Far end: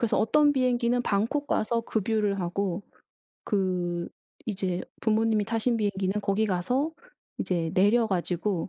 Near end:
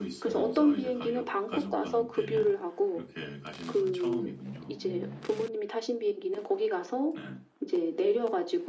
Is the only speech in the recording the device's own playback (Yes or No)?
No